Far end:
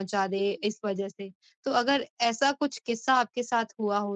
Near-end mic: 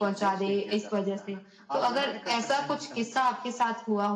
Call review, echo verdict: present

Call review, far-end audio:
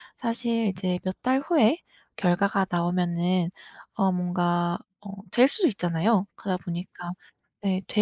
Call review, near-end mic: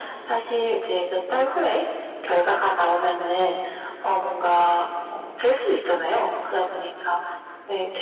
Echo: present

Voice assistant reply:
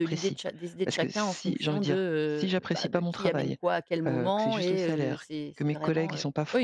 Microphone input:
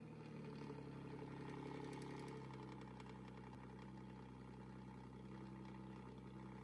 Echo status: none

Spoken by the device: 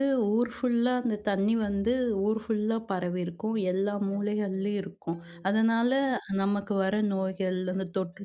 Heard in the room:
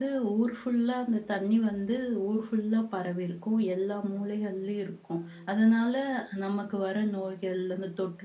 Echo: present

